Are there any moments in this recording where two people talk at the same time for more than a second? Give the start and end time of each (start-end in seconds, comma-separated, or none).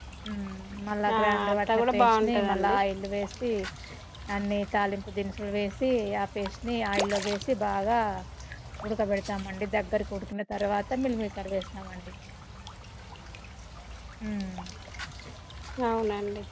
1.2-2.8